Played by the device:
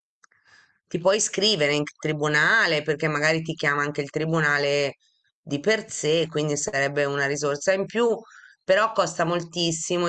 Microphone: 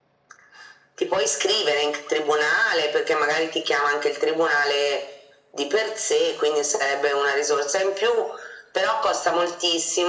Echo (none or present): present